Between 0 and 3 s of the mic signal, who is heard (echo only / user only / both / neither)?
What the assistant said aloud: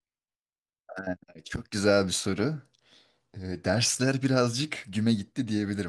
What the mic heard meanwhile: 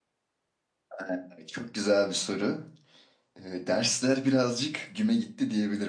echo only